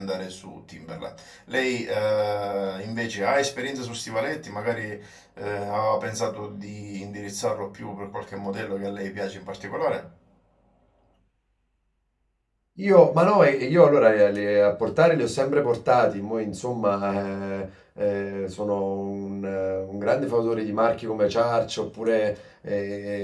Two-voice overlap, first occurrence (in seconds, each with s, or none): none